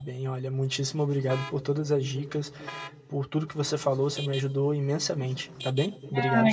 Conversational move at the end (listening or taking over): taking over